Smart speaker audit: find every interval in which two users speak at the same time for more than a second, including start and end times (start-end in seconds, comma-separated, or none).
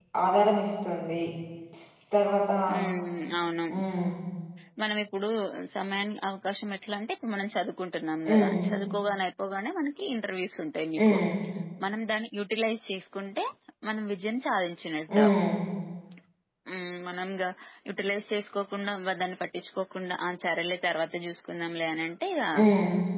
none